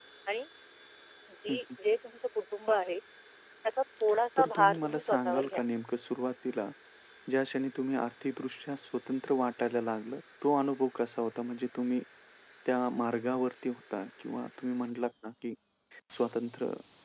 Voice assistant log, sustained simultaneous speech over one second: present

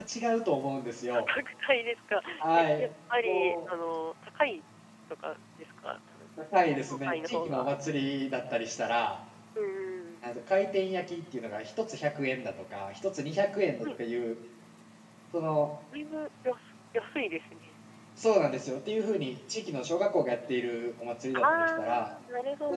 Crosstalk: present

